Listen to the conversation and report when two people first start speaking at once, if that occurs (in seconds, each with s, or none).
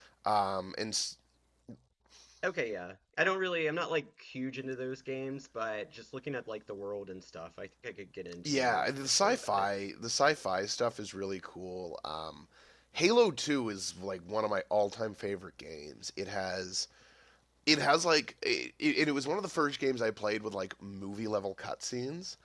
8.4 s